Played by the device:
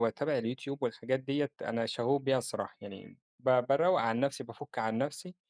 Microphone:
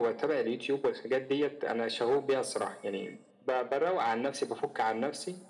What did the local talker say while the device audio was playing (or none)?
none